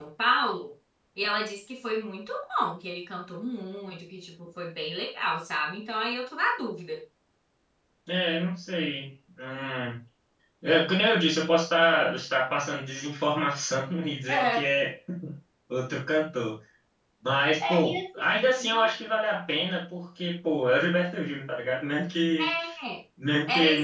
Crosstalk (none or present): present